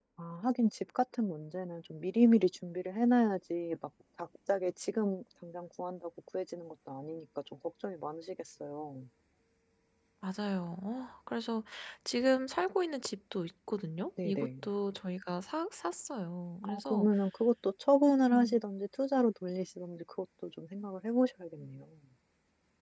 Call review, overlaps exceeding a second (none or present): none